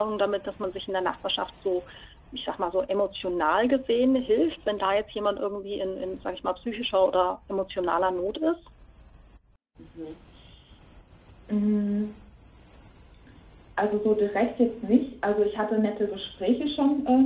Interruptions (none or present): none